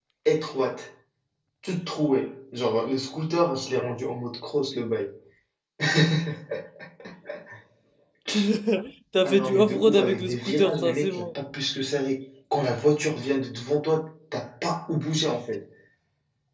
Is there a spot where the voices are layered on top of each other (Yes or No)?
Yes